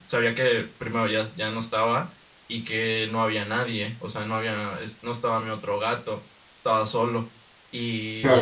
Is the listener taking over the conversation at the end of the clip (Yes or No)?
Yes